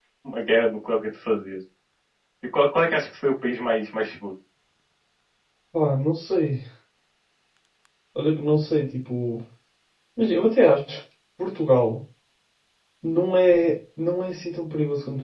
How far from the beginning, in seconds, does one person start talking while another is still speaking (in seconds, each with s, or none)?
none